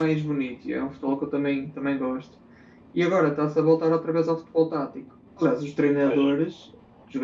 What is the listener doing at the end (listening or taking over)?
listening